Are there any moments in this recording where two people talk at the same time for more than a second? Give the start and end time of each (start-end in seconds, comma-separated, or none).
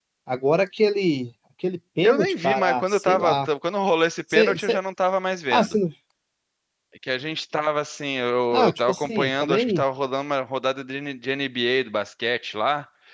2.0-3.5, 8.5-9.8